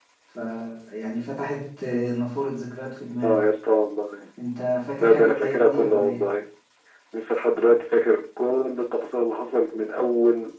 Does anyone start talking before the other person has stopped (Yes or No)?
Yes